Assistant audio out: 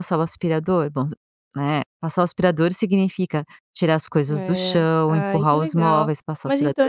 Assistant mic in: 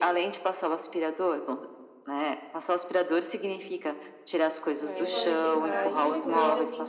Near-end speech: present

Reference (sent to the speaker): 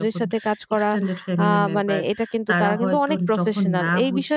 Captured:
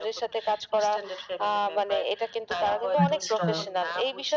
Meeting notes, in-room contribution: present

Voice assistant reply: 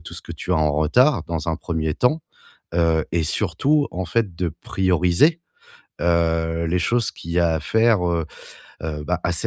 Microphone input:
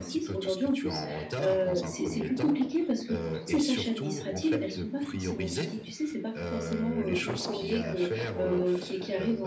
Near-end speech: present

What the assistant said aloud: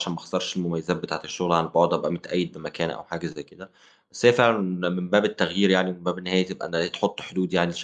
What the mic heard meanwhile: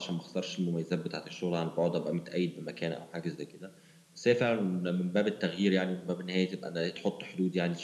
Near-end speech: none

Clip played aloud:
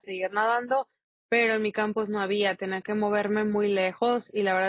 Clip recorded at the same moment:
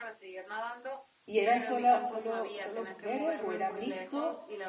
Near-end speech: present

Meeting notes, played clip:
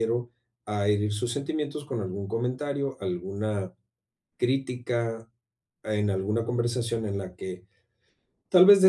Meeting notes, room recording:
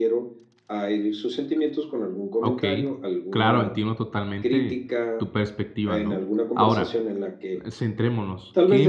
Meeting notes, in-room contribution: present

